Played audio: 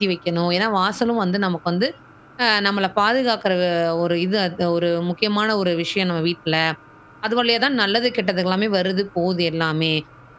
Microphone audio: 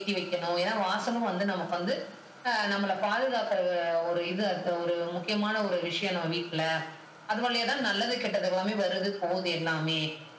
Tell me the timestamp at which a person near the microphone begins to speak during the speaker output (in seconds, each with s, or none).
none